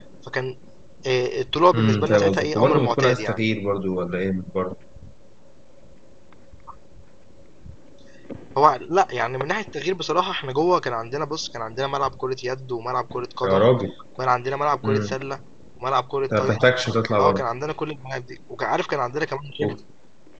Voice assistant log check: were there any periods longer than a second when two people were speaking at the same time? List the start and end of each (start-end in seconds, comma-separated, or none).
1.7-3.4